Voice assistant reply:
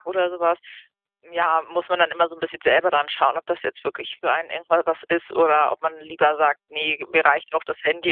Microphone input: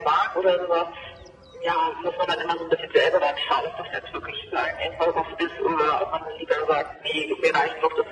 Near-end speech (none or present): none